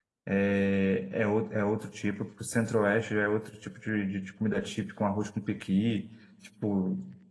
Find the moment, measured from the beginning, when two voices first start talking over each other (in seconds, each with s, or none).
none